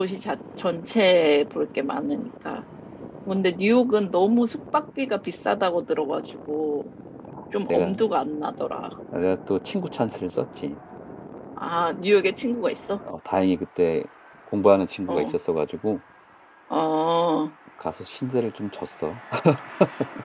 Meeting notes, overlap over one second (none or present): none